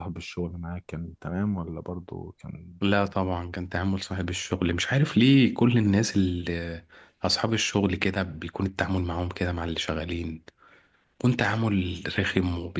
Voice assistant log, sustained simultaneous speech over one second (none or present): none